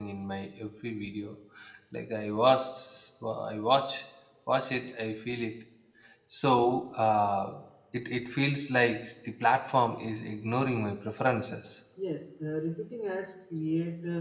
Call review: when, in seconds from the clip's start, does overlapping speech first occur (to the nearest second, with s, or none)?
none